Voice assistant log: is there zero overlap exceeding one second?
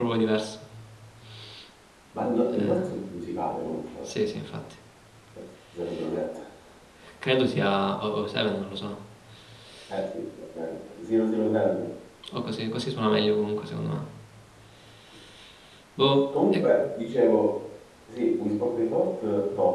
Yes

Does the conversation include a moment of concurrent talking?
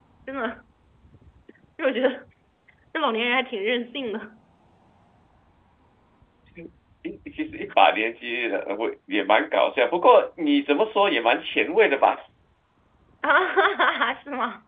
No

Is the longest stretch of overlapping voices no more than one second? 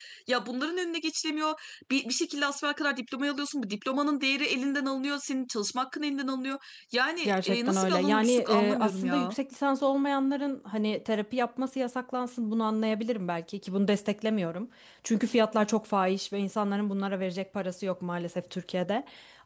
No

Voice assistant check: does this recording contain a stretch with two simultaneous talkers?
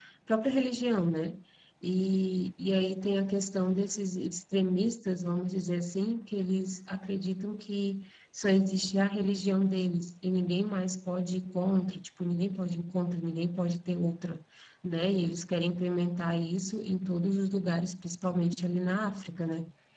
No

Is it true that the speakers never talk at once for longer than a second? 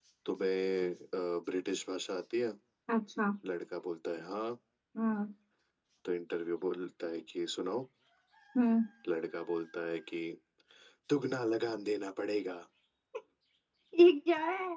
Yes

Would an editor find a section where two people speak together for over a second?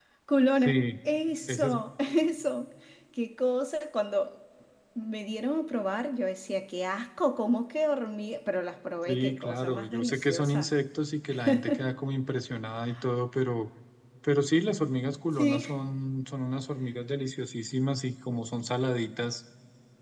Yes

